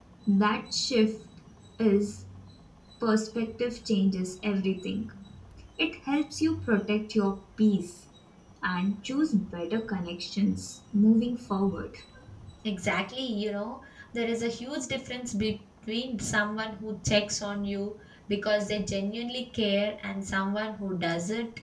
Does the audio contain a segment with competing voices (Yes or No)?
No